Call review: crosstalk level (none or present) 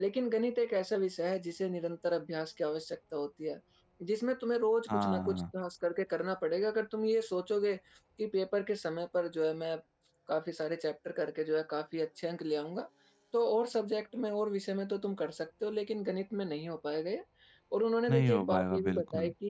present